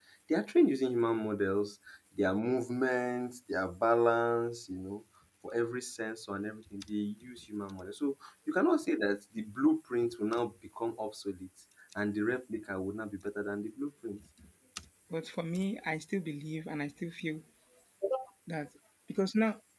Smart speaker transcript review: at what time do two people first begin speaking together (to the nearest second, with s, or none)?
none